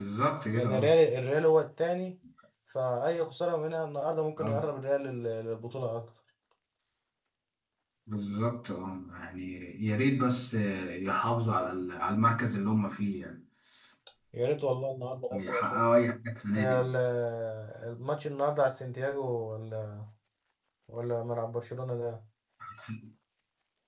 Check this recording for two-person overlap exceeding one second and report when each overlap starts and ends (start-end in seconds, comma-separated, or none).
none